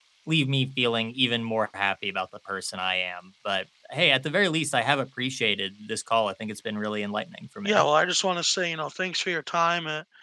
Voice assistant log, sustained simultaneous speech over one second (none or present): none